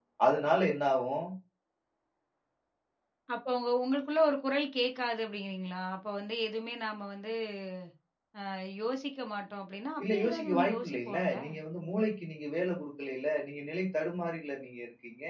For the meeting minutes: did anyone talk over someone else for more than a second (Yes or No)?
Yes